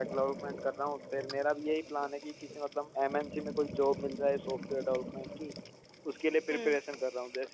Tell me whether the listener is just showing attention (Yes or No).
Yes